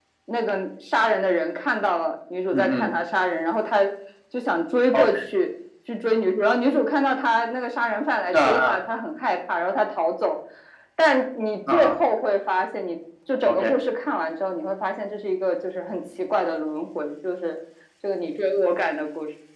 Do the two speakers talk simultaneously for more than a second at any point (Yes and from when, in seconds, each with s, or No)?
No